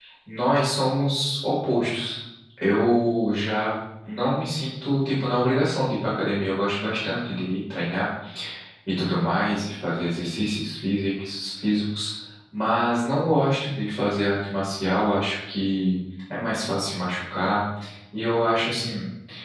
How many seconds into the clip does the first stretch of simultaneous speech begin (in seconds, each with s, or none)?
none